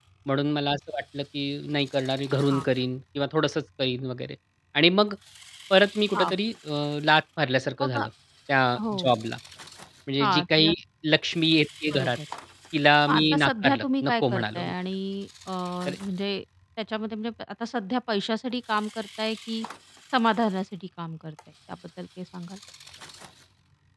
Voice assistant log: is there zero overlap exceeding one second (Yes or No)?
No